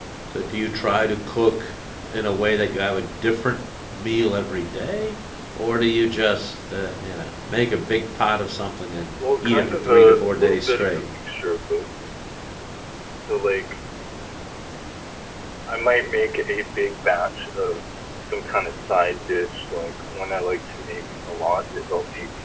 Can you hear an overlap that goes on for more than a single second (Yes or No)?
Yes